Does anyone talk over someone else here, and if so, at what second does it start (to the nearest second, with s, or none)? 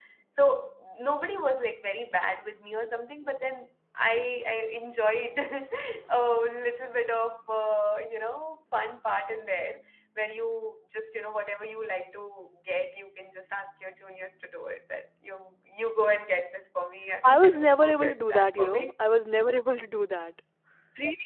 17 s